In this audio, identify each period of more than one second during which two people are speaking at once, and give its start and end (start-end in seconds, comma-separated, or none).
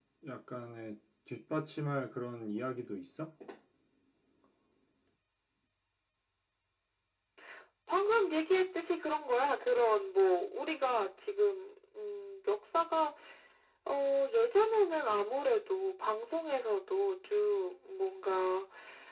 none